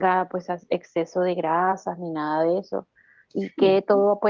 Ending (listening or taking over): listening